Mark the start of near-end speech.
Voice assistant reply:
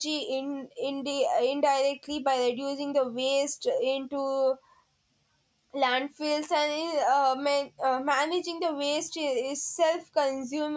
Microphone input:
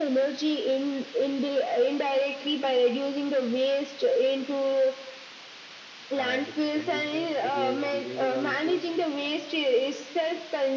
6.2 s

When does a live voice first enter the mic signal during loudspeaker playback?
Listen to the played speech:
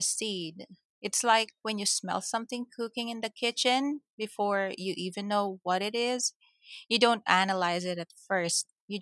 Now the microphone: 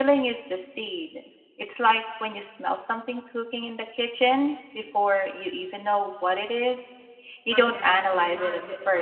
7.5 s

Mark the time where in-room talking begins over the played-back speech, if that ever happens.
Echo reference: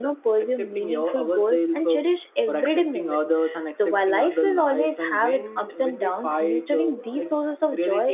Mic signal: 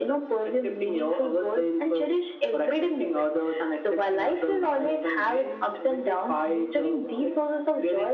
none

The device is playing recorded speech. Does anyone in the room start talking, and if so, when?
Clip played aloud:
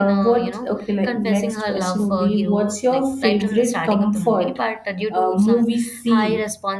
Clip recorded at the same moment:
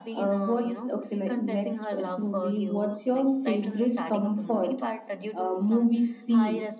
none

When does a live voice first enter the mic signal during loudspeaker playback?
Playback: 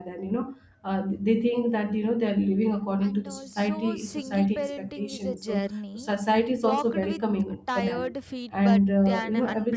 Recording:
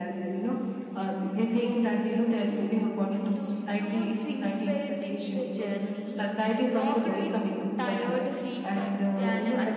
none

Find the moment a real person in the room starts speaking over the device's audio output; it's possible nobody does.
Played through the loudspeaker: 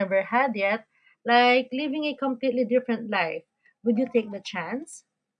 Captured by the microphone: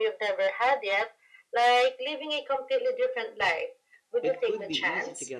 4.2 s

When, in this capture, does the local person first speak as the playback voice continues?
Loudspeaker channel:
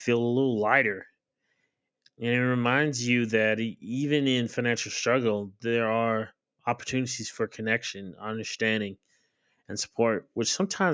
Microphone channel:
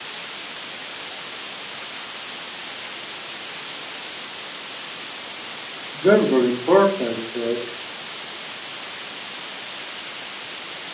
5.9 s

